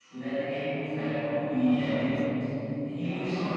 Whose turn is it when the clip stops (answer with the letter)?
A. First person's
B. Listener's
B